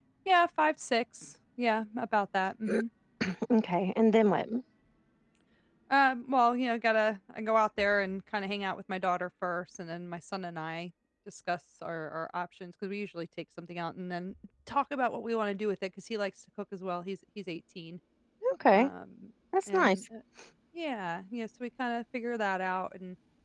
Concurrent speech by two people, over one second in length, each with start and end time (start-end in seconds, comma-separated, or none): none